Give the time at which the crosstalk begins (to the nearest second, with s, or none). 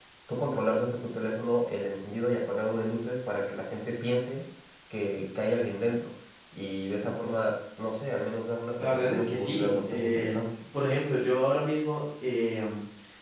9 s